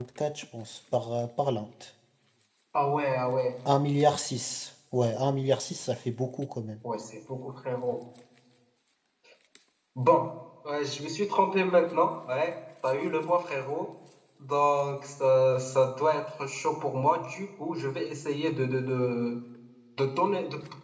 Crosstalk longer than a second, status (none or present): none